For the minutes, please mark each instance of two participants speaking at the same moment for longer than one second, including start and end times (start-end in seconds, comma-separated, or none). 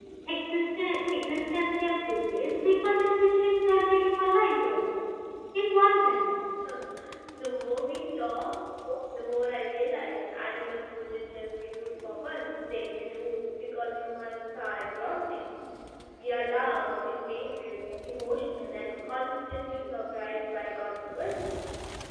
none